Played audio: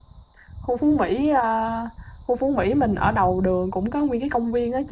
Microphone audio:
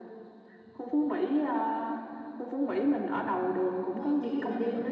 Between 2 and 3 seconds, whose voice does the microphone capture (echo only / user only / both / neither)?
echo only